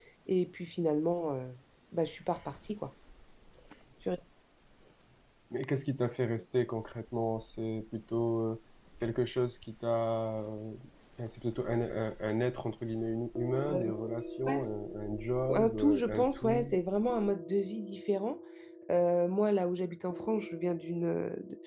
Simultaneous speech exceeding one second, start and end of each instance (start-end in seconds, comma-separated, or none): 15.6-16.8